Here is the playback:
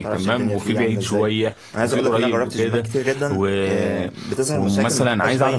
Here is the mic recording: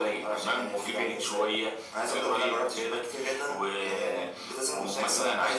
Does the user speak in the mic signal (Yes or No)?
No